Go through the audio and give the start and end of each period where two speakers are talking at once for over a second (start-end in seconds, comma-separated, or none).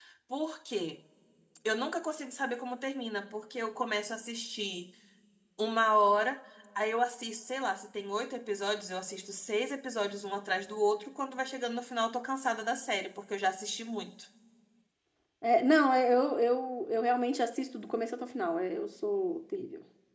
none